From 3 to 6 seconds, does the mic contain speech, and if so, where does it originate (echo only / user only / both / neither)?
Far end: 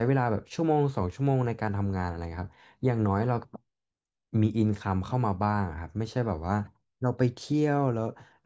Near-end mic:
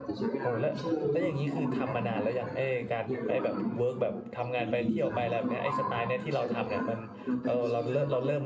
both